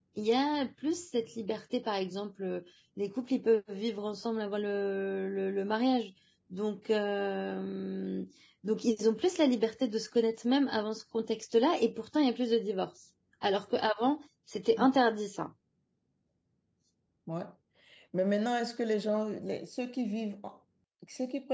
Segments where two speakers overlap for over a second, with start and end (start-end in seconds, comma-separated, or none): none